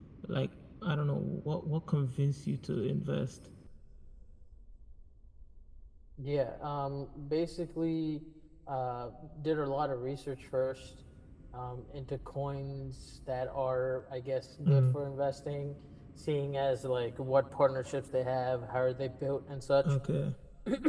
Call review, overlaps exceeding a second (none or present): none